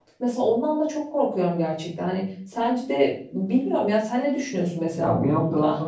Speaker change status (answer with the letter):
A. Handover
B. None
A